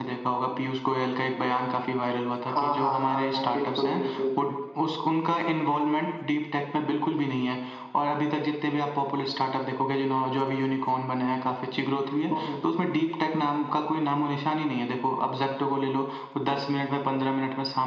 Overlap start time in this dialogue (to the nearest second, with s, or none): 3 s